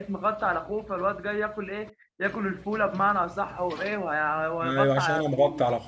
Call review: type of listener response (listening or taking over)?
taking over